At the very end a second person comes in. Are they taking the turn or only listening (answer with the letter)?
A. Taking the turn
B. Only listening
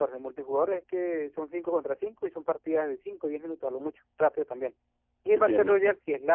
B